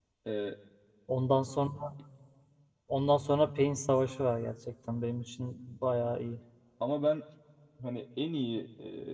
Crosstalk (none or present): none